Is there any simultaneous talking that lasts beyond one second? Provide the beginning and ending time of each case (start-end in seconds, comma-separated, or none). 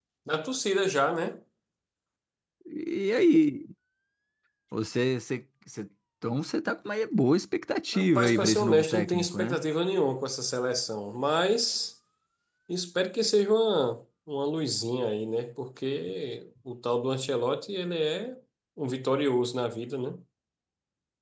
7.9-9.6